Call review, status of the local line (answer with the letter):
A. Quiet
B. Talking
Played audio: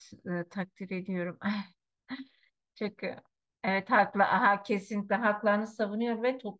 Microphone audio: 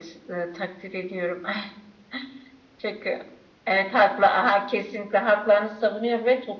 A